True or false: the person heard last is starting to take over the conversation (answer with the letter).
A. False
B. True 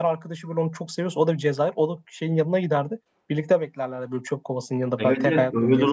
B